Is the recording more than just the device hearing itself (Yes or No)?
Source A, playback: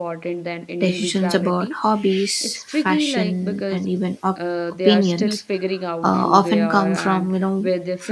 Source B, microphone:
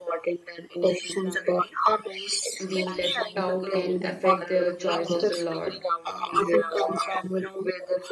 Yes